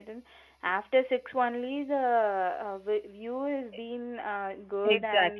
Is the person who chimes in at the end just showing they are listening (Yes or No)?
No